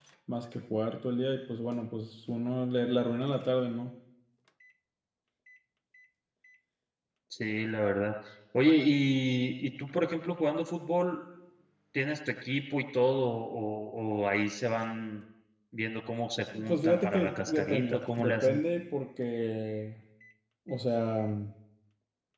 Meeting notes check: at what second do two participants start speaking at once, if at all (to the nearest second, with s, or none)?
17 s